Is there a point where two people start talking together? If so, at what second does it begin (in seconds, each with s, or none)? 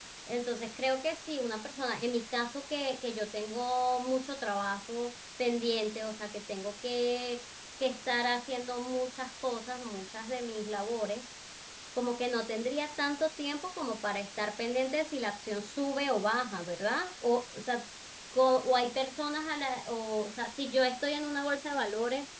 none